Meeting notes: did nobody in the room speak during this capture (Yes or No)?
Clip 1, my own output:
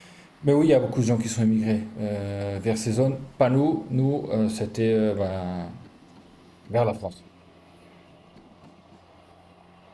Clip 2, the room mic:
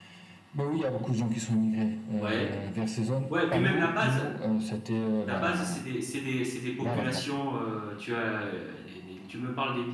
No